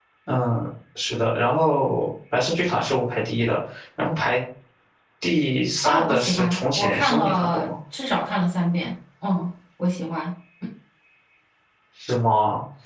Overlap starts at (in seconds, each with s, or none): 5.8 s